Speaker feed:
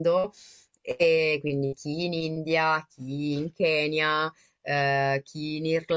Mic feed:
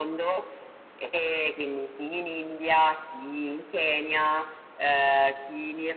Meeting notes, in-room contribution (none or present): none